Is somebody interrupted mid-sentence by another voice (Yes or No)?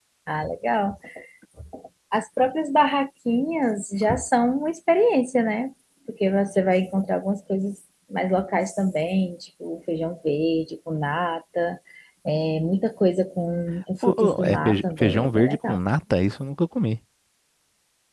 Yes